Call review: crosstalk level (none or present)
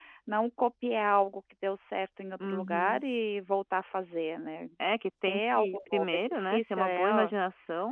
present